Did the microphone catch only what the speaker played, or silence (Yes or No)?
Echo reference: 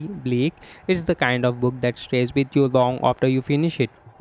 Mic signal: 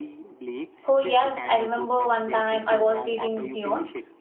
No